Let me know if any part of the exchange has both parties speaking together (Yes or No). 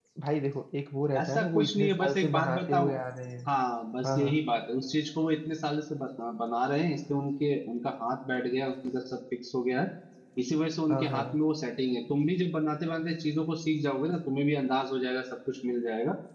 Yes